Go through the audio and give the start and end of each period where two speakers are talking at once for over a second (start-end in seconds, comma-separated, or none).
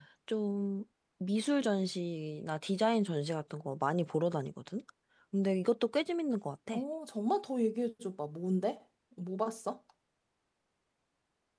none